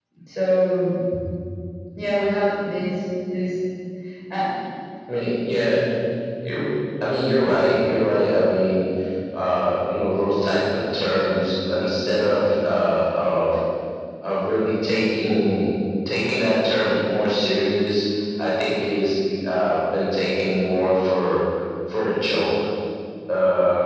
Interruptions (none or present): none